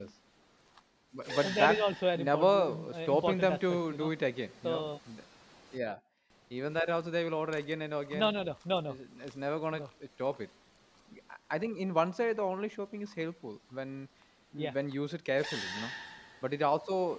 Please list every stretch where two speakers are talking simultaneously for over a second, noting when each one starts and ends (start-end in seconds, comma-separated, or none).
2.1-4.1